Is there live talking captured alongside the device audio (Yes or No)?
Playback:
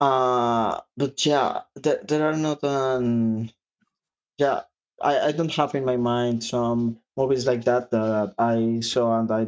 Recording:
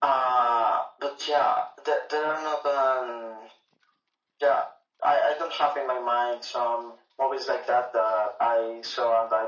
No